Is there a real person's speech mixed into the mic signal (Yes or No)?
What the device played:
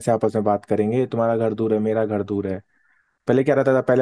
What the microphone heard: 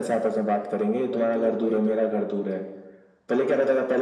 Yes